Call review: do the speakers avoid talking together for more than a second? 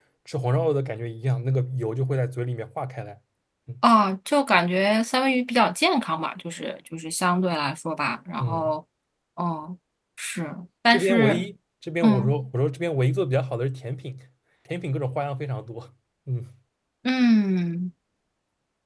Yes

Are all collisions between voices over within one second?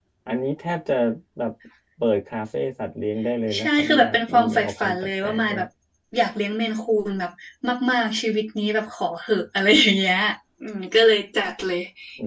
No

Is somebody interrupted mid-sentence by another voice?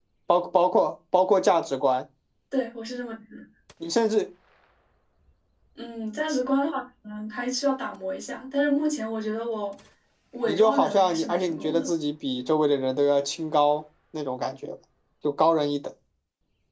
Yes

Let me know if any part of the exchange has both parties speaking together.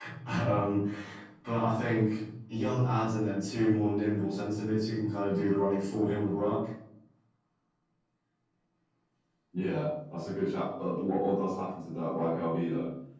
No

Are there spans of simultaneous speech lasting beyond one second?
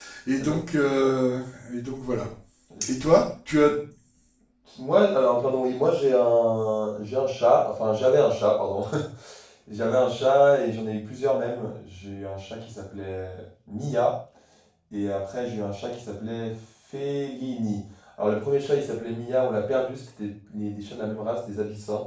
No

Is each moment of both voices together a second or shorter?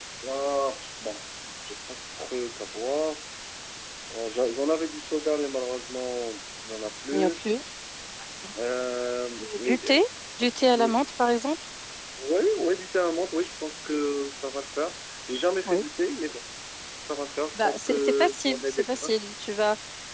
No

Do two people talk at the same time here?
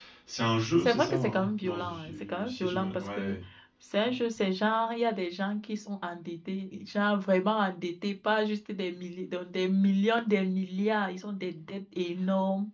Yes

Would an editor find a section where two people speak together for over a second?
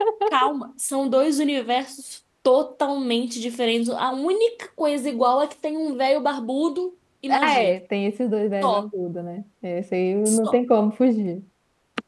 No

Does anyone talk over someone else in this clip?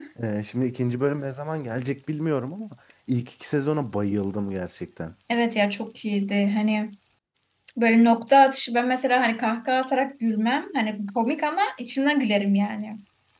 No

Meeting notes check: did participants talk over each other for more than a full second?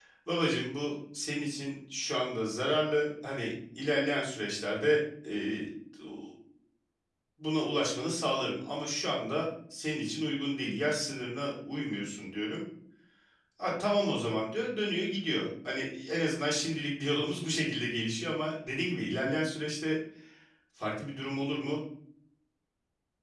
No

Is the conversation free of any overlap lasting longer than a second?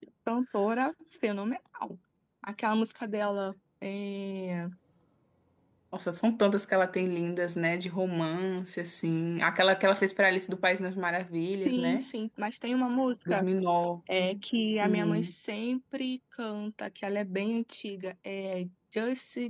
Yes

